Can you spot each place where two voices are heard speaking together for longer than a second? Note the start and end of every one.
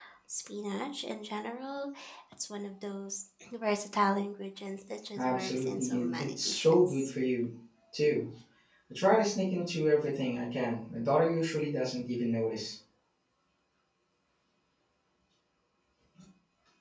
5.2-7.1

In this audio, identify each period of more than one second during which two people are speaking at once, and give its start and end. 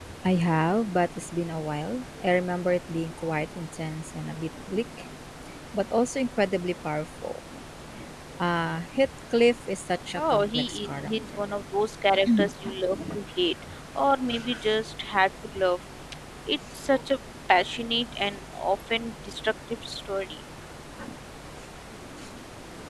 10.2-11.4

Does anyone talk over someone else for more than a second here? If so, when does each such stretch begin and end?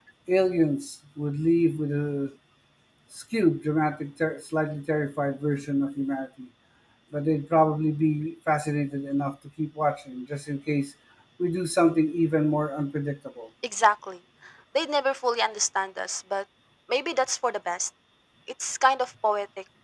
none

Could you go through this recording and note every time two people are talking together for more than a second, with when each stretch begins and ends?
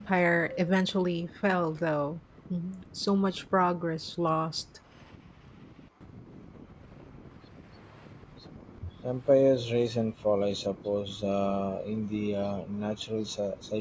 none

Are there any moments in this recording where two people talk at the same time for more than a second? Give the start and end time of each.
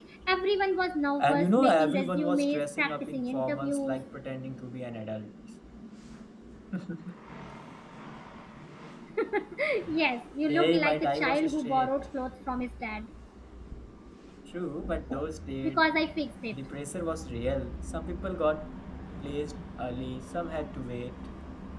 1.2-4.0, 10.5-11.9

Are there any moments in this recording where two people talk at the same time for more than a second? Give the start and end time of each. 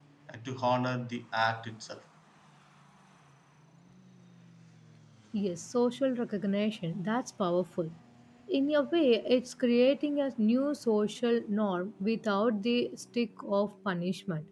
none

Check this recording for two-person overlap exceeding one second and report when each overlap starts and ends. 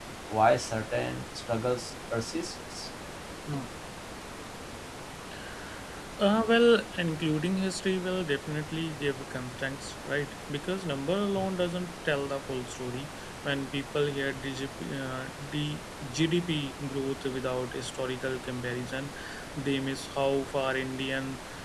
none

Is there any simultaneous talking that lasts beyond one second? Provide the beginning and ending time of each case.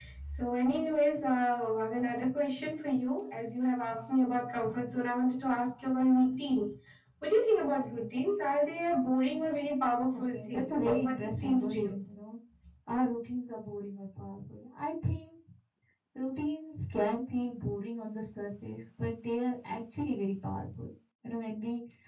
10.3-11.9

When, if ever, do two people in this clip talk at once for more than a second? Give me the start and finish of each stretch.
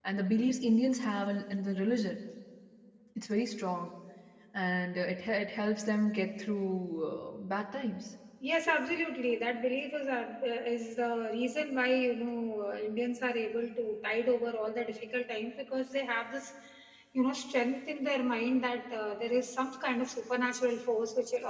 none

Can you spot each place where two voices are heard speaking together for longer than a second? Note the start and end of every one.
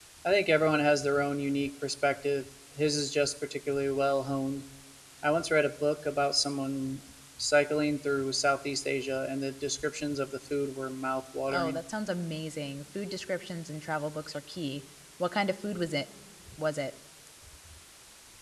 none

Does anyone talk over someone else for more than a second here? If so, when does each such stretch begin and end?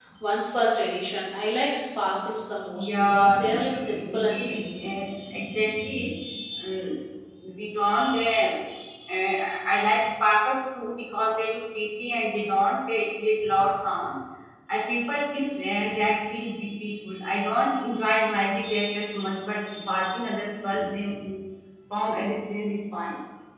2.7-4.7

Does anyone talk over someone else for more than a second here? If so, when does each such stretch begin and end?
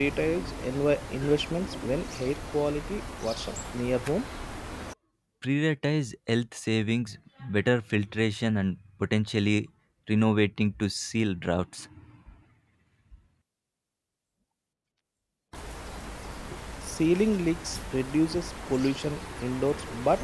none

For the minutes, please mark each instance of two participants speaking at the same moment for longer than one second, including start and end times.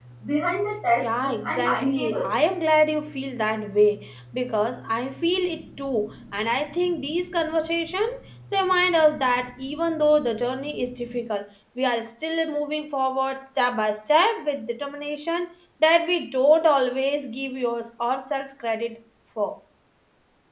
1.0-2.3

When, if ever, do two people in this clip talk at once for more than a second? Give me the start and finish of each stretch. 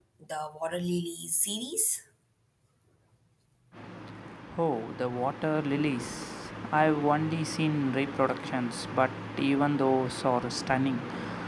none

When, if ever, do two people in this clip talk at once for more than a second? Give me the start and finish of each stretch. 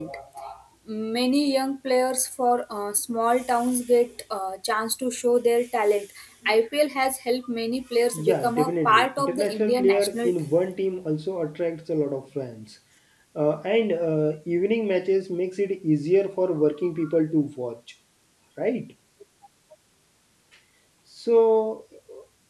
8.2-10.5

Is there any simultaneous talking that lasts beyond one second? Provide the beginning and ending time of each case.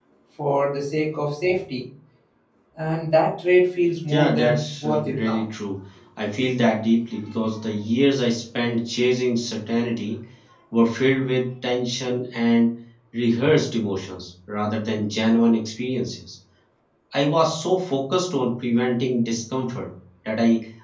4.1-5.4

